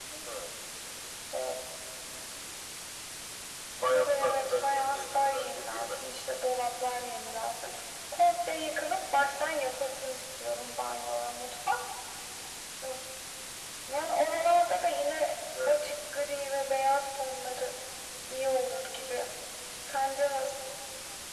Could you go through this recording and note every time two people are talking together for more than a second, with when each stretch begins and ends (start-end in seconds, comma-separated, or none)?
3.9-6.0